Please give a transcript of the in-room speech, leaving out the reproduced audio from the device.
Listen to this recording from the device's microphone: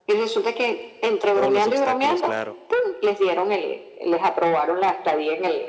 todos los obstáculos, claro,

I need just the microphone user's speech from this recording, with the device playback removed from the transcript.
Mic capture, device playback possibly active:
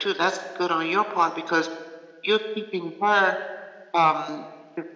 none

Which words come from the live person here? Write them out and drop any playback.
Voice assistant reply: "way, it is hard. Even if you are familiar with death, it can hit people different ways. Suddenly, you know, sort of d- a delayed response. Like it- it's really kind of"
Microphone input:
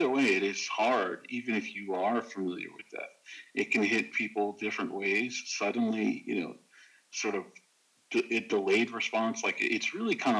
none

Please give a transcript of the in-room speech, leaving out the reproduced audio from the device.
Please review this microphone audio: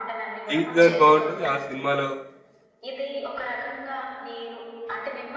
బీట్ గాని బావుంటది. ఆ సినిమాలో

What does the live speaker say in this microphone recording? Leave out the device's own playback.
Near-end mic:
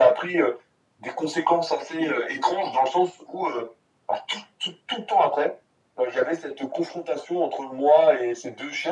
none

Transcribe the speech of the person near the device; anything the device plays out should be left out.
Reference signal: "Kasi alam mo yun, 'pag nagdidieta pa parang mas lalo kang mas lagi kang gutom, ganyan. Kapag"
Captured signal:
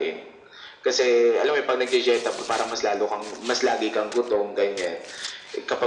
none

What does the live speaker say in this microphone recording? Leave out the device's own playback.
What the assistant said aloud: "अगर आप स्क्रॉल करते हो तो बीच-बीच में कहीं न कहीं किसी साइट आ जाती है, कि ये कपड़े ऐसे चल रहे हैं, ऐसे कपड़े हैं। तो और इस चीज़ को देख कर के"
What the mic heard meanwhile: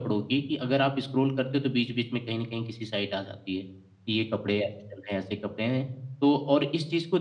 none

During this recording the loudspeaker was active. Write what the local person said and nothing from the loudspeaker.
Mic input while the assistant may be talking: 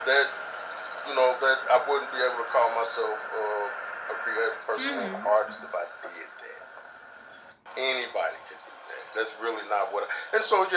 Mhm. mhm.

